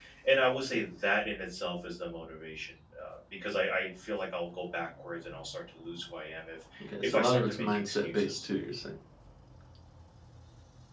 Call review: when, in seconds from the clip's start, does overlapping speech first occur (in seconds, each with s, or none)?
6.8 s